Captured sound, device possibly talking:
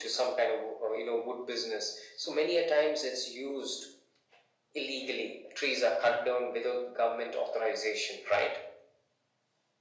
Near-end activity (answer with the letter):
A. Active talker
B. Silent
B